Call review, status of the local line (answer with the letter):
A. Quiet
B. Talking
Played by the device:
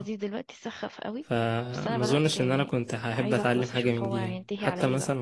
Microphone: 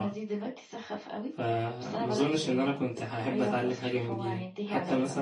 A